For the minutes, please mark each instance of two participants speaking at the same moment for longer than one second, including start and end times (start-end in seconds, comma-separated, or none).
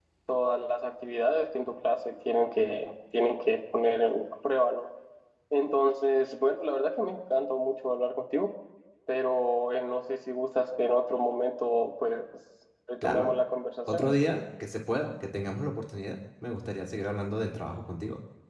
none